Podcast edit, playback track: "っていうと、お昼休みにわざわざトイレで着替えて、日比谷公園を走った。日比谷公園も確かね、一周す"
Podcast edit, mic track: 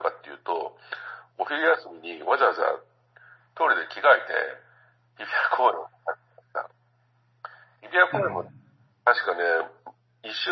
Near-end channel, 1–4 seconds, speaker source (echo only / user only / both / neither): echo only